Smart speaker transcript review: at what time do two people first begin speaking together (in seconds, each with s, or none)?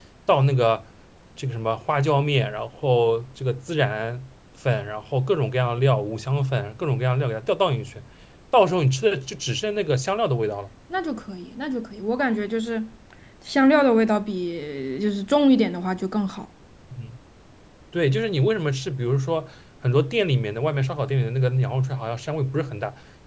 none